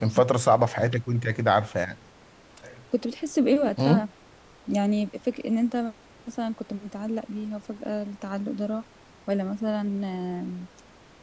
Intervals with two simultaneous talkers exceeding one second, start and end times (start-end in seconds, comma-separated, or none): none